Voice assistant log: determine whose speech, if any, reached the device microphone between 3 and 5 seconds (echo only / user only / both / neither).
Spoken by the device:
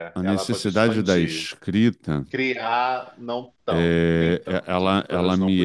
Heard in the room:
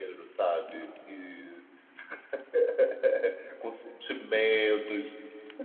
user only